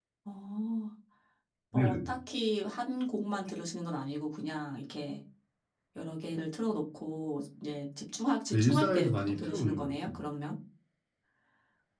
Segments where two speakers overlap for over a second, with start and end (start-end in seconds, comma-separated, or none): 8.5-10.2